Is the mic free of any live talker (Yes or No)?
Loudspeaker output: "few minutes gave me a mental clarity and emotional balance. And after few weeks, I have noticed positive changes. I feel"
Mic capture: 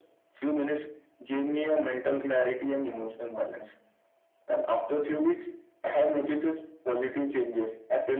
Yes